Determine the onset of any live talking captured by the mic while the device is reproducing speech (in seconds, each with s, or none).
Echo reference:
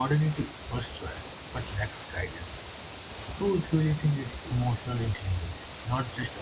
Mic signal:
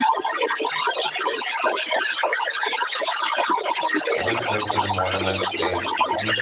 4.2 s